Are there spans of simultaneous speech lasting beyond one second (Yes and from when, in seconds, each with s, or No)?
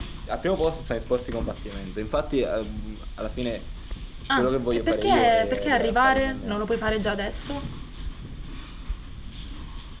Yes, from 4.4 s